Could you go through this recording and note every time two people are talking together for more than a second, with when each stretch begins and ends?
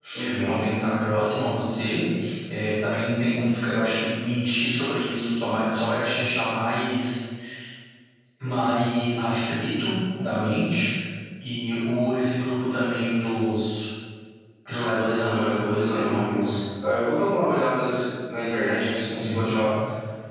15.2-16.5

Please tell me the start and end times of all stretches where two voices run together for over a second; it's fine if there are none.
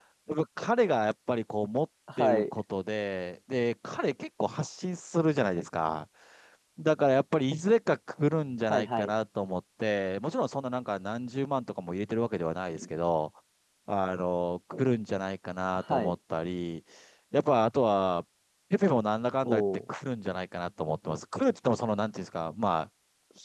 none

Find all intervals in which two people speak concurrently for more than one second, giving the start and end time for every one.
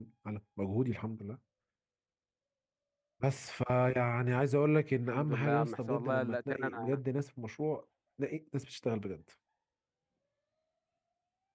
5.1-7.0

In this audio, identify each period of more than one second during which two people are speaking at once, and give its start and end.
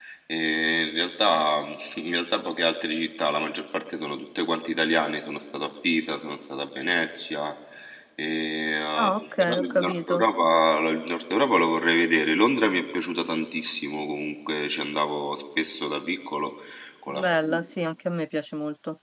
8.9-10.2

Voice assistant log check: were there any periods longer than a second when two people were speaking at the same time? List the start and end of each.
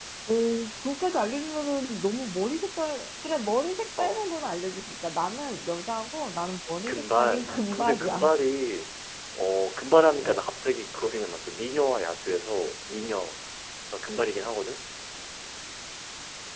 6.9-8.3

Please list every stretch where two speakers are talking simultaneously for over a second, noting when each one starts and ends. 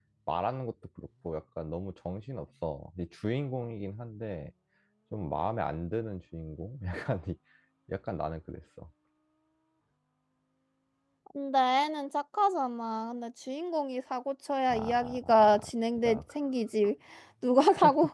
14.7-16.2

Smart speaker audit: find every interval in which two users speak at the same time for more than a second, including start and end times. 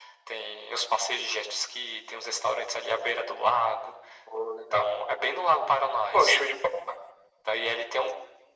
none

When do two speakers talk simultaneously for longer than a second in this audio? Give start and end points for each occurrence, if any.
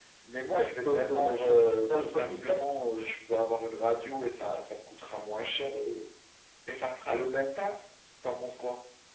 0.8-2.6

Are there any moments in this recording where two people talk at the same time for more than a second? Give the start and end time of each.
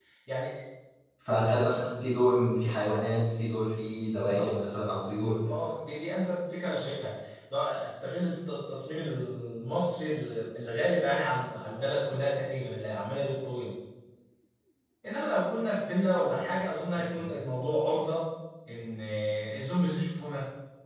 none

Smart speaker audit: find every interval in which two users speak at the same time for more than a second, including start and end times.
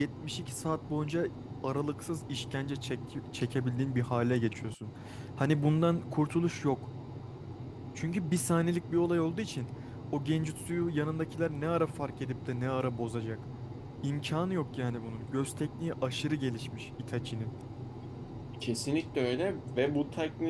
none

